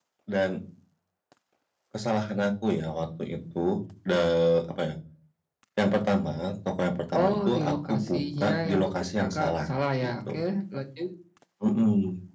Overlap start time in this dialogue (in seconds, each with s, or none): 7.1 s